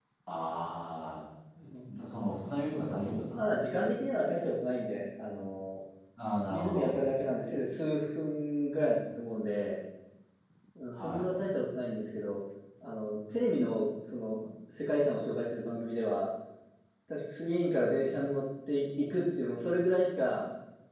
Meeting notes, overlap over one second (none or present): none